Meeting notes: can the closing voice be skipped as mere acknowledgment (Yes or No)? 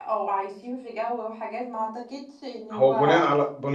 No